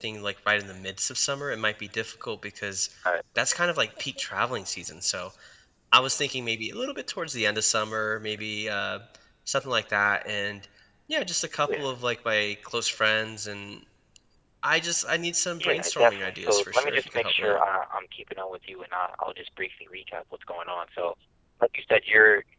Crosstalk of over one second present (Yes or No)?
Yes